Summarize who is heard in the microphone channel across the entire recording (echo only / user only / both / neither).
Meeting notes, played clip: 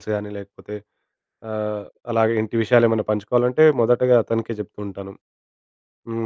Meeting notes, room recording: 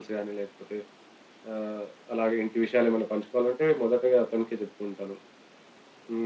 echo only